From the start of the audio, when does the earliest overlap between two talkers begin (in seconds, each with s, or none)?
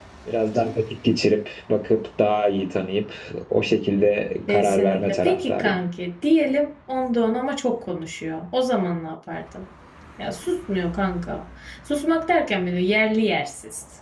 4.5 s